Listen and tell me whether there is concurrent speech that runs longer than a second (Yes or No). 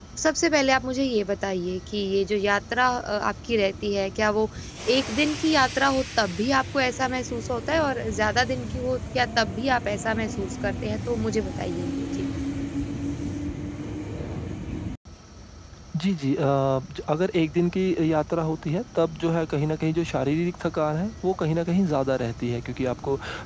No